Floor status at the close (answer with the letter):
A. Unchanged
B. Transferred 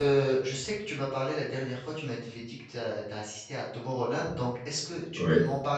A